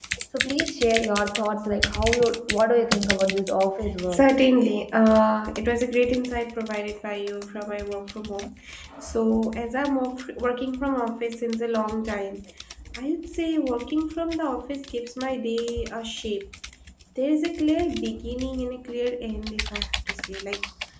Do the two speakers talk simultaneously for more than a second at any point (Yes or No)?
No